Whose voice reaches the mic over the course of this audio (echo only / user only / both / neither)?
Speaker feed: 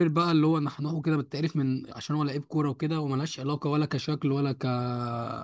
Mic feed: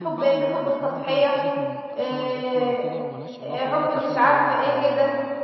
both